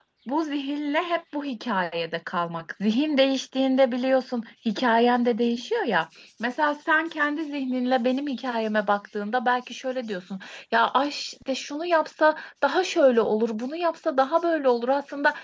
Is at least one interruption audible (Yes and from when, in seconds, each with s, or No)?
No